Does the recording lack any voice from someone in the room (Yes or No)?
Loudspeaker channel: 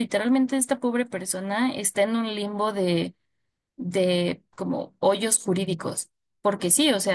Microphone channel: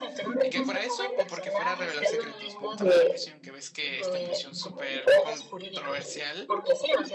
No